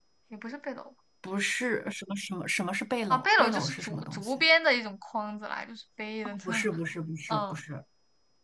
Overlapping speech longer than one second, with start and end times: 3.1-4.4

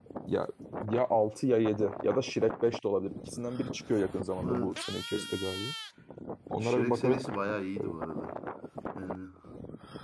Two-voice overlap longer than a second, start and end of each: 6.6-7.9

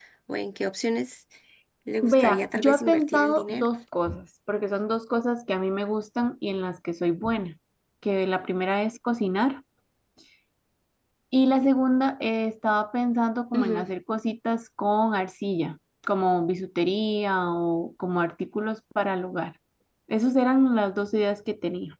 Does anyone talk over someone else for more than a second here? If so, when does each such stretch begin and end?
2.0-3.7

